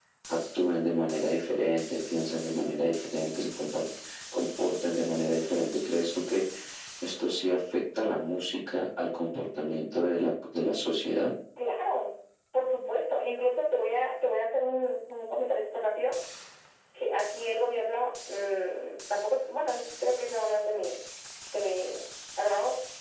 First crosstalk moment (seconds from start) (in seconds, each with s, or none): none